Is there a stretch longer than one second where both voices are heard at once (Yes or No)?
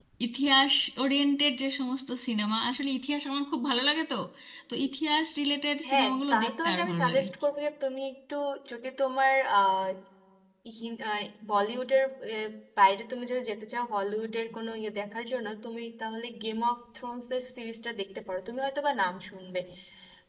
Yes